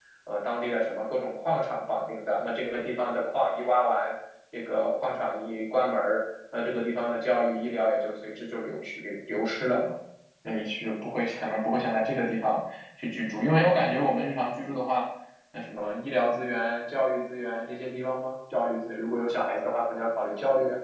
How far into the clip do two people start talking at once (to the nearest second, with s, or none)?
none